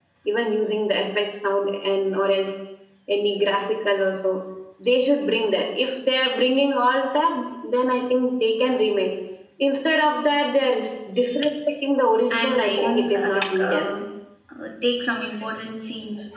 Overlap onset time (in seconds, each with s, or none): 12.3 s